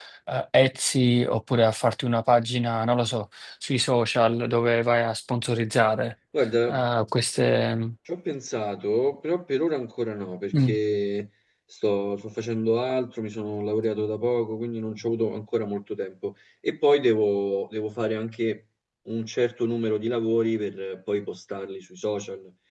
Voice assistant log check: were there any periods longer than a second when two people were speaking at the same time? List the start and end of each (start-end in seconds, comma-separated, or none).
none